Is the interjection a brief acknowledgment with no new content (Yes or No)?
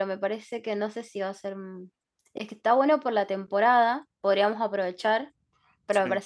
Yes